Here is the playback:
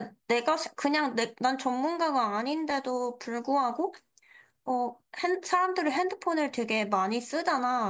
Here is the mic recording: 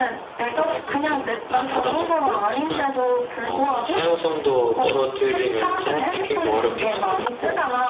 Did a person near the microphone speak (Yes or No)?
Yes